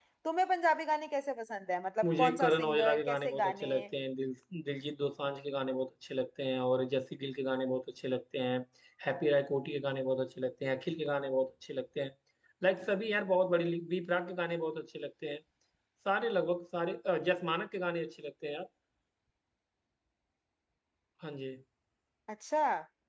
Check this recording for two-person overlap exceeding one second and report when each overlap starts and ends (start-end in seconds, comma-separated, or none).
2.0-3.7